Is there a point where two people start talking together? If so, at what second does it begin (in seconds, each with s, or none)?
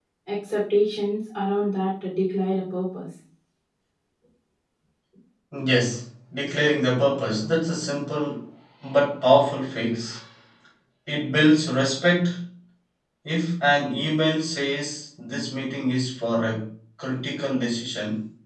none